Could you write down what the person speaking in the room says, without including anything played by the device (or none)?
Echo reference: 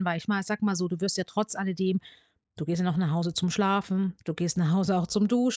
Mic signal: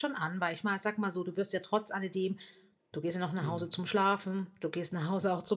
mhm.